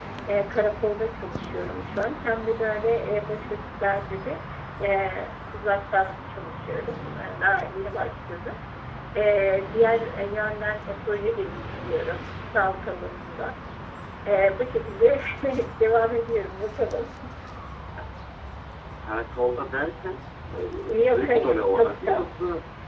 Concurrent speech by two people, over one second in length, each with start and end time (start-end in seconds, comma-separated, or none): 21.1-22.3